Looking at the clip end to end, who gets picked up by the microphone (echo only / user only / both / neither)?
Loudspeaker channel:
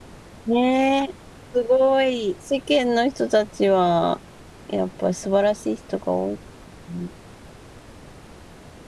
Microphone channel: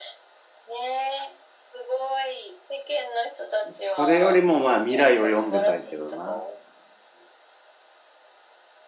both